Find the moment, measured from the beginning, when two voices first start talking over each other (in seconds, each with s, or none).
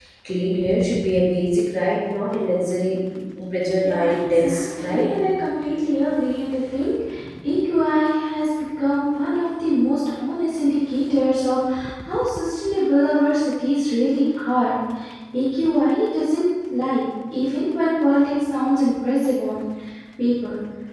3.8 s